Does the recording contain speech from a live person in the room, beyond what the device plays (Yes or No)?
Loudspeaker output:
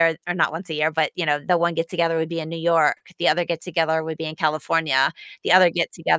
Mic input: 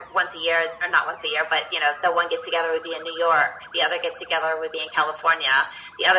No